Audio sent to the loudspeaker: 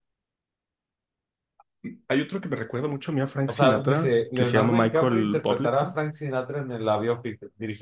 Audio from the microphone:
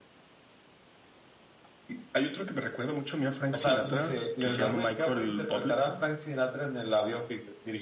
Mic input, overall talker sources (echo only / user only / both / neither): echo only